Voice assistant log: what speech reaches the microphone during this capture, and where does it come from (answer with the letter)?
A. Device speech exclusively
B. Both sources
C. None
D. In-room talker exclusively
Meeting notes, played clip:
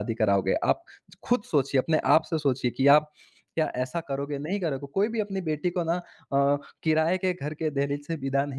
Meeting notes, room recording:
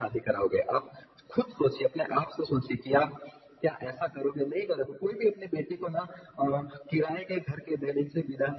A